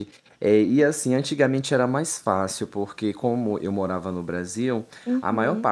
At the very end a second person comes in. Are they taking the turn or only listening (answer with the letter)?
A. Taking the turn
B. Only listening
B